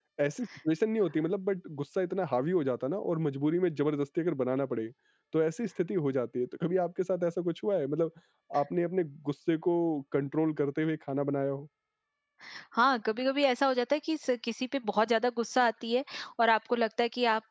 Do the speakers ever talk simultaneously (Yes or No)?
No